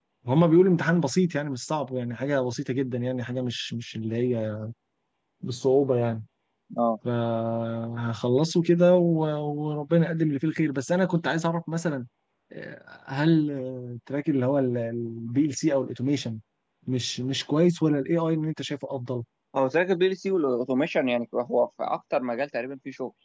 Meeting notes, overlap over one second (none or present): none